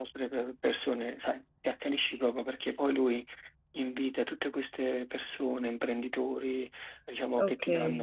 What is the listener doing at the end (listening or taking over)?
listening